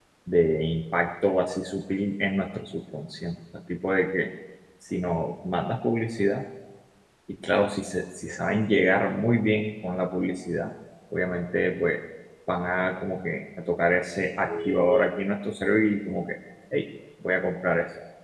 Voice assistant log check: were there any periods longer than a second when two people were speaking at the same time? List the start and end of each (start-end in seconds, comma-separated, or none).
none